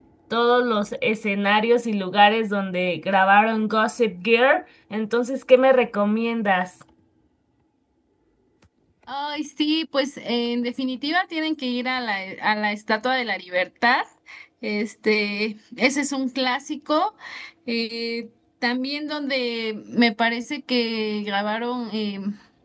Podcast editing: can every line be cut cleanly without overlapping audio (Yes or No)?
Yes